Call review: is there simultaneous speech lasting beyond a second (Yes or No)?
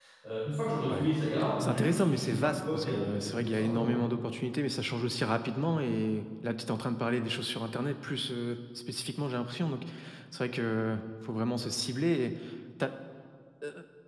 Yes